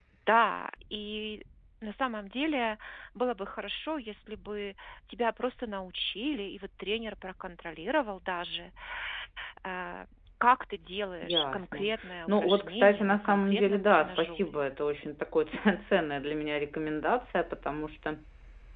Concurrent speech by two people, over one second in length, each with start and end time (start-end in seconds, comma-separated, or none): 11.2-14.6